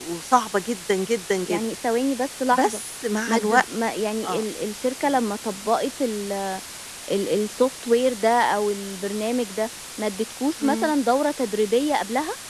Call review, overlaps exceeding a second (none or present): none